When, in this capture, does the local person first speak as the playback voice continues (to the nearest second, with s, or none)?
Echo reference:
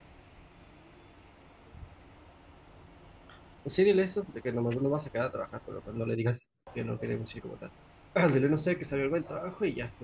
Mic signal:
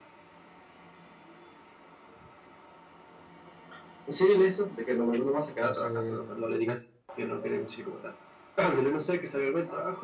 6 s